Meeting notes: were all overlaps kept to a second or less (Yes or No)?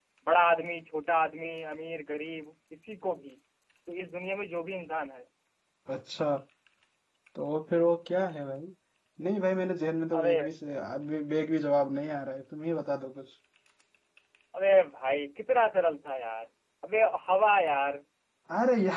Yes